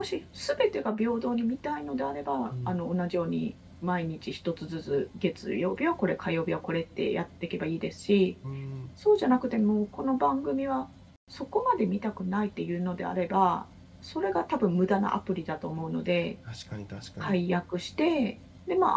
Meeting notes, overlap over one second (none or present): none